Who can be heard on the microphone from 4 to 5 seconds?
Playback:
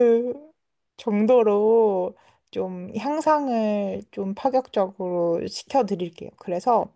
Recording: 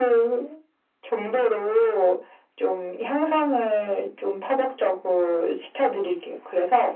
echo only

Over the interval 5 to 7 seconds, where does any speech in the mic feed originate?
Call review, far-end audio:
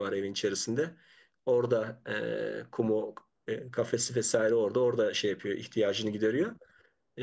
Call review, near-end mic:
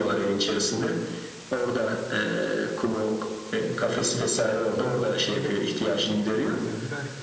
both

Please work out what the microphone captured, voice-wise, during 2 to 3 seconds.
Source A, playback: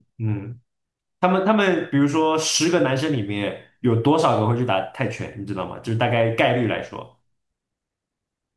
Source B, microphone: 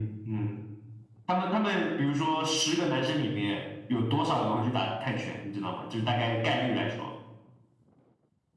echo only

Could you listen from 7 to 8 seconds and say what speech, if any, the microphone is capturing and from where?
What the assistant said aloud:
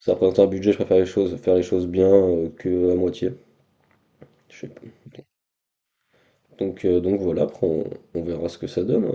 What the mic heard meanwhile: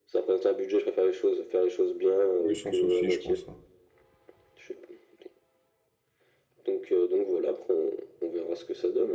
echo only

